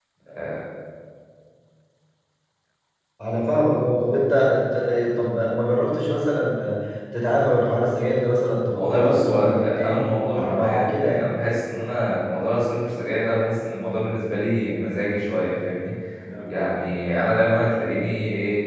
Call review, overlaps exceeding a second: present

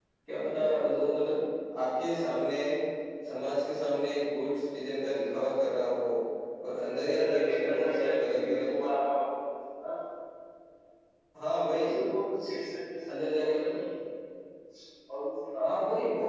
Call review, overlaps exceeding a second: present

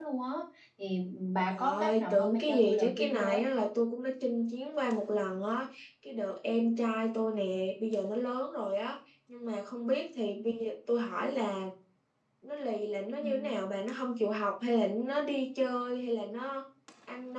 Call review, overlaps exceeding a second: present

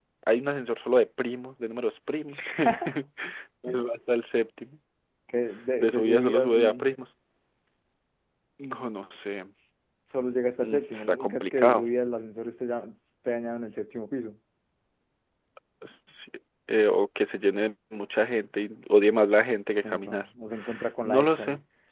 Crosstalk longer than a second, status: present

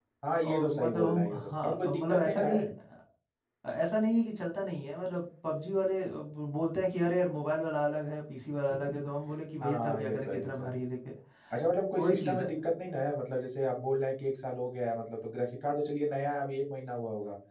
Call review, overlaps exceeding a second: present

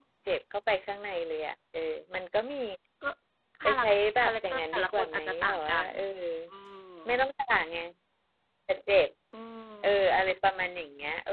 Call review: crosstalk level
present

